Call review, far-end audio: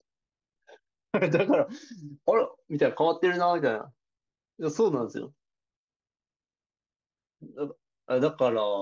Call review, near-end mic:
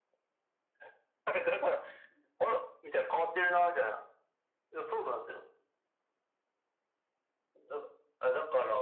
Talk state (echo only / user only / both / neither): echo only